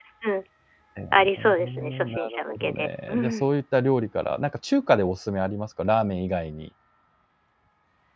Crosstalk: present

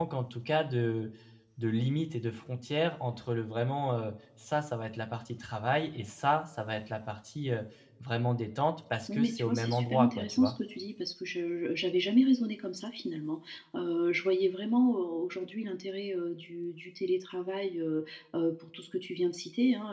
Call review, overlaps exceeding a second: present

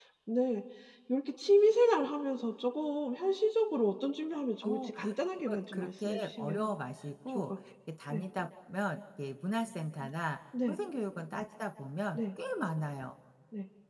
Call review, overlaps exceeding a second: present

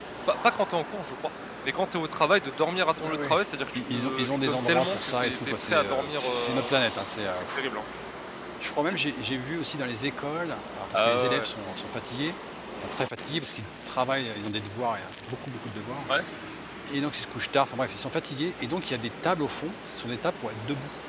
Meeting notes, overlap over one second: present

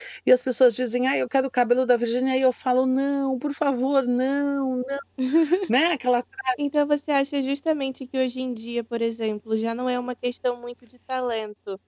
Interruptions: none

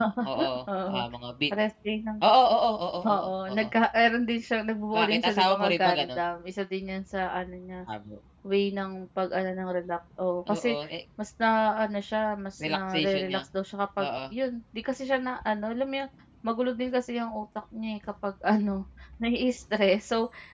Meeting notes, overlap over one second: present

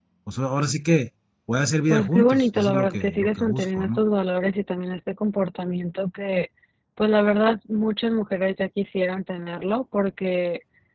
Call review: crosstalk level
present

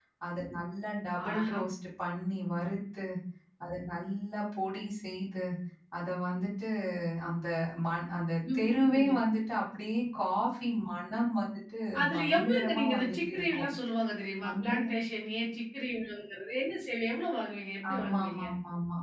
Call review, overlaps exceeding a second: present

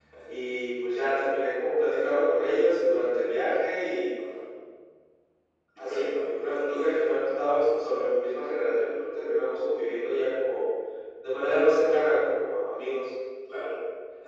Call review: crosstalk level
present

